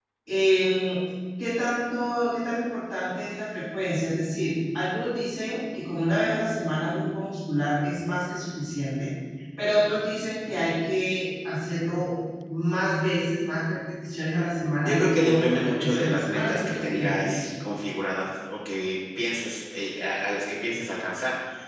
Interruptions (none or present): present